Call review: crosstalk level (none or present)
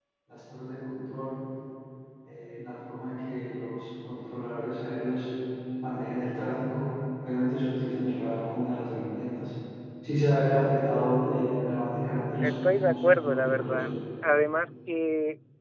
present